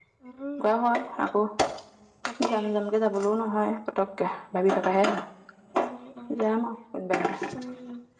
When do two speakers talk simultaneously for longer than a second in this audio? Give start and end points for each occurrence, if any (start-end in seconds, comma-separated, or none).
none